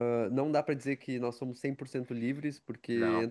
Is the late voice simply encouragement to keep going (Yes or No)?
Yes